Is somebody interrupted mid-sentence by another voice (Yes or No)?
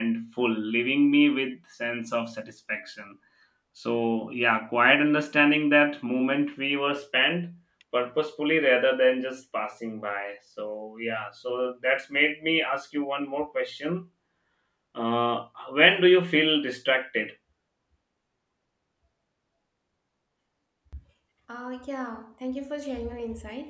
No